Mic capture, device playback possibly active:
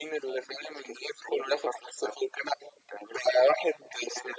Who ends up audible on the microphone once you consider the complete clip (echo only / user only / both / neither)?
echo only